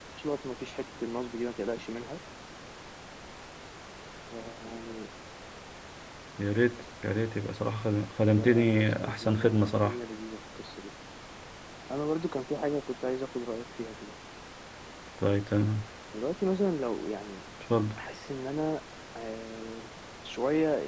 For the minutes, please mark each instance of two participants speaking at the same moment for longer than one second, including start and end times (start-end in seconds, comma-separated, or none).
8.4-10.0